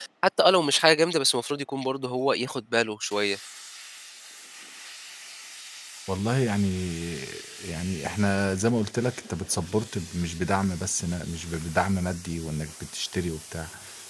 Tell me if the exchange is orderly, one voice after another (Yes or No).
Yes